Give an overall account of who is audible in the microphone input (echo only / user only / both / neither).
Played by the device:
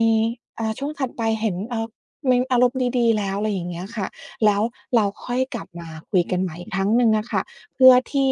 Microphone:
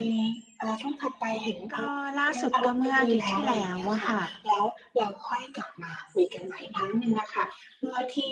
both